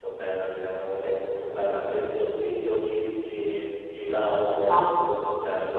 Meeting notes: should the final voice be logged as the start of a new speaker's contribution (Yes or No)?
No